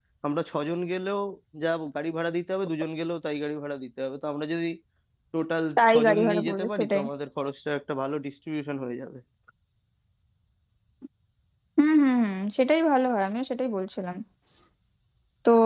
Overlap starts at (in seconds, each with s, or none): 5.8 s